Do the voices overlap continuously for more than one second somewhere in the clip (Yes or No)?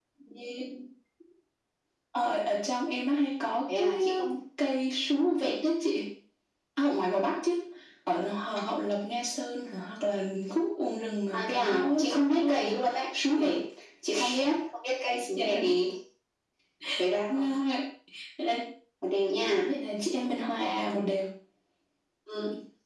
Yes